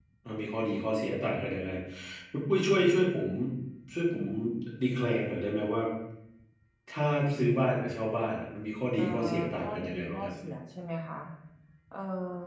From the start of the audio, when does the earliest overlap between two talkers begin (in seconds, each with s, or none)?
9.0 s